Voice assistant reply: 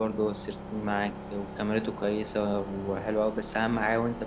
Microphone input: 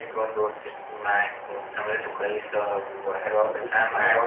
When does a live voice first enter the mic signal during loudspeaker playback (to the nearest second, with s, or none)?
3 s